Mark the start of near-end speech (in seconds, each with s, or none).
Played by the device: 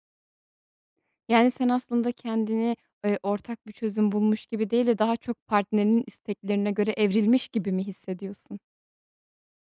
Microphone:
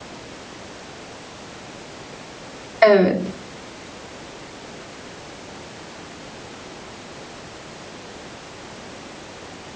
2.8 s